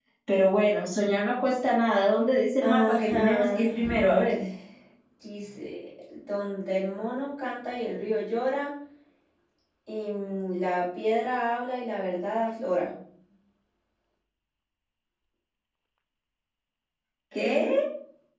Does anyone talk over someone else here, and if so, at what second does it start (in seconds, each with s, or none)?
2.6 s